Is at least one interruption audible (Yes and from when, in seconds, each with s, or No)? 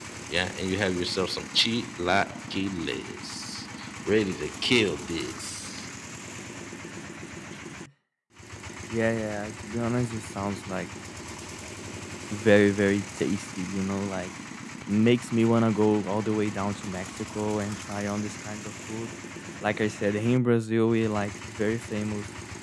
No